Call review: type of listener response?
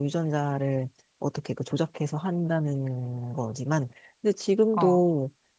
listening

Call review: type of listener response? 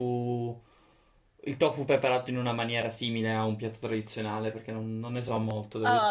taking over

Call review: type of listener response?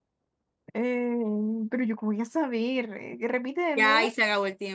taking over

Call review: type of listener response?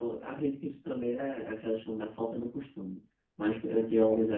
listening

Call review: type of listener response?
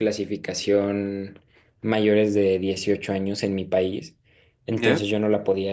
listening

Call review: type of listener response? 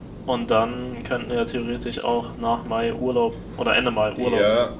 taking over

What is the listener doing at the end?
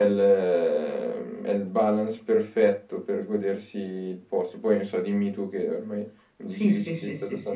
taking over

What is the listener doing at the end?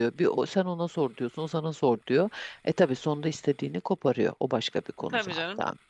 taking over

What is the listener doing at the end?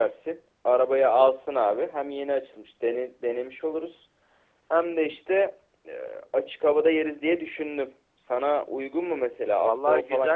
taking over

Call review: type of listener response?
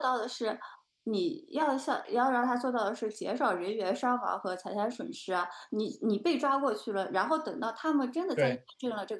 listening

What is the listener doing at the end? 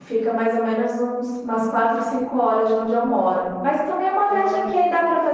listening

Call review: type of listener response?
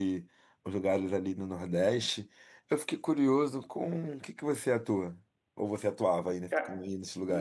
taking over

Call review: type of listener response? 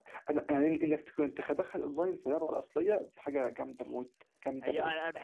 taking over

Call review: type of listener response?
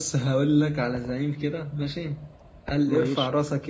listening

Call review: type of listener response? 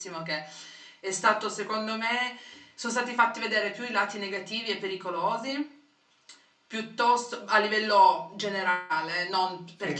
listening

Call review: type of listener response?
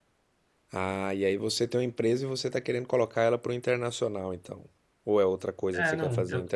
taking over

